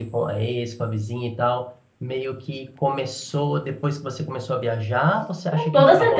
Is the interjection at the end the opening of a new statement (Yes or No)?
Yes